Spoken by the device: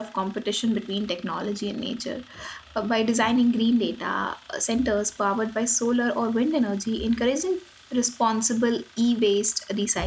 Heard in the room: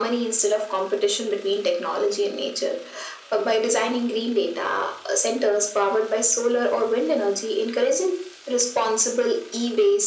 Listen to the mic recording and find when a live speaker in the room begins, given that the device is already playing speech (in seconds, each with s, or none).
none